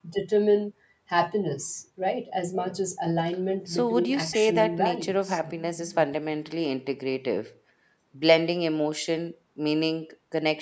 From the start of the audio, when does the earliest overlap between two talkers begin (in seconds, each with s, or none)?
3.7 s